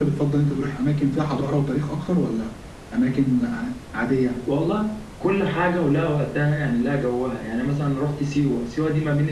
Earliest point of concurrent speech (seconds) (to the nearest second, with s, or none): none